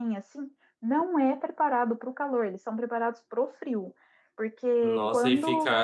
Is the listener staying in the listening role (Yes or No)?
No